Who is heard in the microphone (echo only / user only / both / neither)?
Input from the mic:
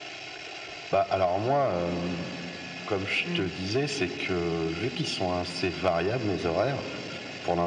both